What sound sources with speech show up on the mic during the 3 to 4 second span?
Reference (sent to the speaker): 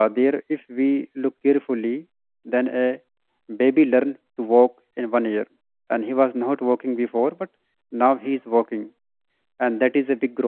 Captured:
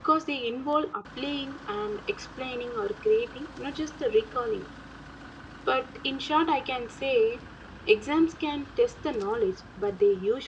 user only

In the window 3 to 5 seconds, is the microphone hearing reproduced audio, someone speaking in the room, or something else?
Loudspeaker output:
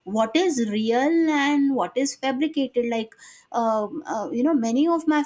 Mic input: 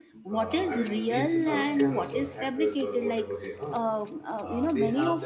both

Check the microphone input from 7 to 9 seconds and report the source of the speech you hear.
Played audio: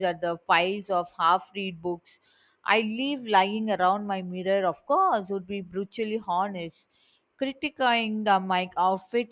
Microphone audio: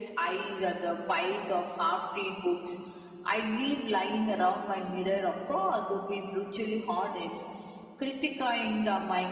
echo only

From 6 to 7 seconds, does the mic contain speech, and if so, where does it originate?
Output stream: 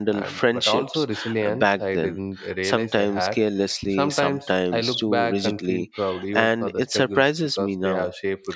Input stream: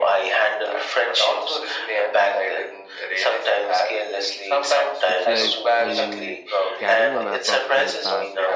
both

